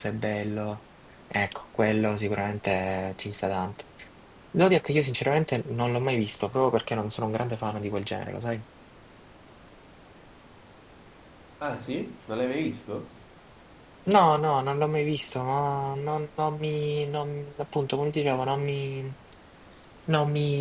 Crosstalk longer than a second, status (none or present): none